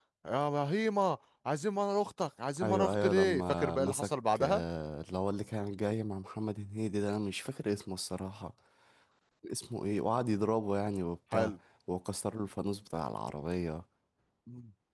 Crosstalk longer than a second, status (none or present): present